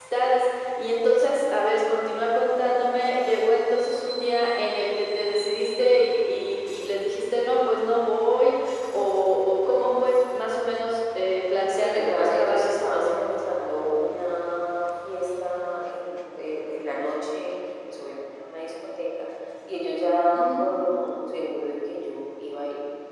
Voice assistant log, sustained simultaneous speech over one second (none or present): present